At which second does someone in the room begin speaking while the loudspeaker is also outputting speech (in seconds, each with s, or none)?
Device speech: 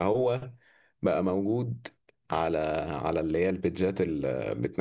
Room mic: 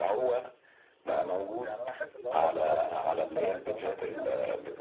1.4 s